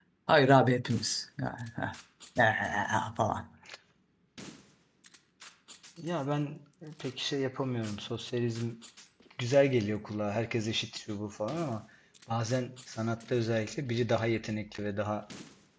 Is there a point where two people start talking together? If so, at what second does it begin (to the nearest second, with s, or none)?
none